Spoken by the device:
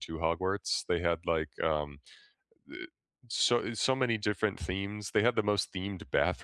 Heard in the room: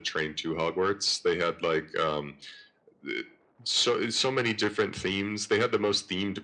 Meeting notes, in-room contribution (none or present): none